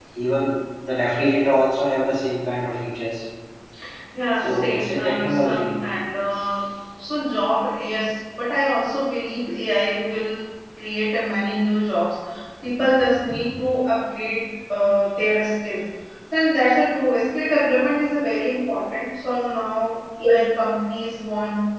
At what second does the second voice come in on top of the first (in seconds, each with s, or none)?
4.4 s